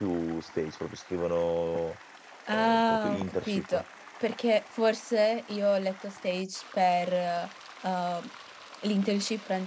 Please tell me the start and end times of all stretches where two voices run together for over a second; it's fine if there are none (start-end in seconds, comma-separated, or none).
2.5-3.8